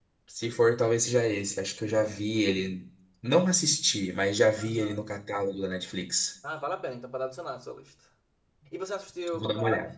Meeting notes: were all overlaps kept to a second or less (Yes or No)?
Yes